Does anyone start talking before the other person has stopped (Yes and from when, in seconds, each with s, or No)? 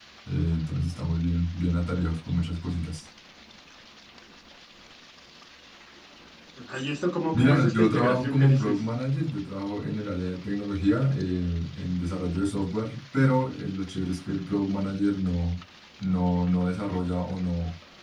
Yes, from 7.3 s